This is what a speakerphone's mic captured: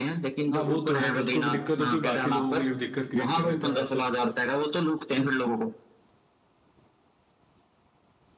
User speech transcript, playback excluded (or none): हाँ वो तो है खुद को भी दिक्कत होती है बाकी लोगों के लिए भी दिक्कत क्रिएट कर देते हैं वैसे